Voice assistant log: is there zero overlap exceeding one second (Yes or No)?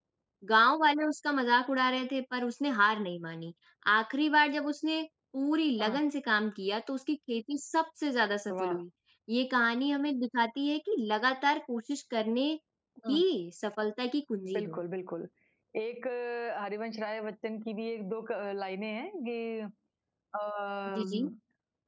Yes